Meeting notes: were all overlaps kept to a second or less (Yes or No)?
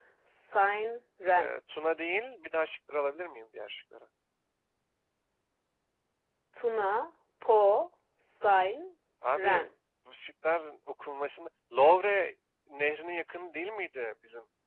Yes